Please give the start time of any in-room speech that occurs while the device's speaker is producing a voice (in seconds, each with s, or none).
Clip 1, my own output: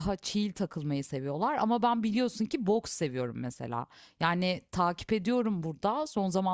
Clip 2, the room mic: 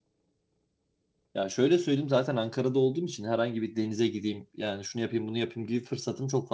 1.3 s